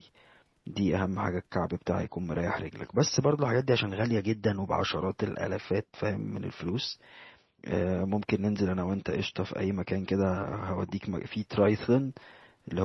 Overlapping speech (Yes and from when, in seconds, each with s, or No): No